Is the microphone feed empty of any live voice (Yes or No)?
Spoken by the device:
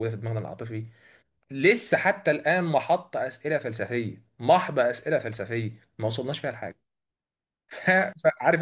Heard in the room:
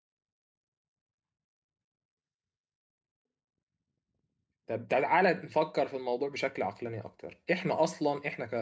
No